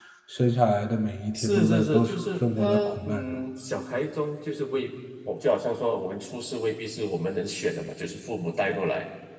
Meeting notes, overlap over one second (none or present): present